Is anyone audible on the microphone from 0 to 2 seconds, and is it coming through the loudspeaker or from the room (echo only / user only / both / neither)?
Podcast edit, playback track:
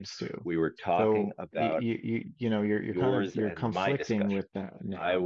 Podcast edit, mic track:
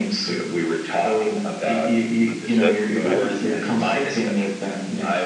echo only